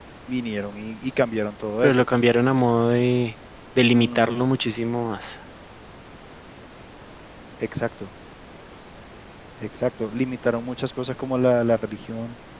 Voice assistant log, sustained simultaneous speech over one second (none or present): none